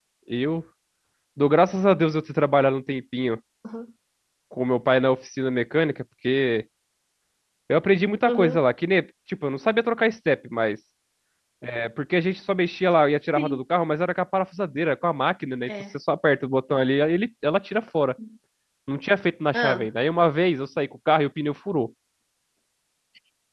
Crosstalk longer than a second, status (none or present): none